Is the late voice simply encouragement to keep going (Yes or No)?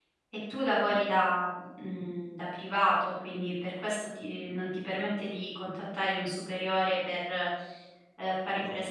No